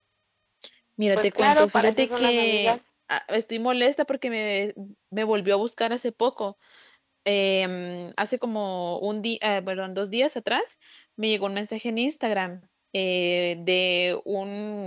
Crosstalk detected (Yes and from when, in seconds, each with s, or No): Yes, from 1.1 s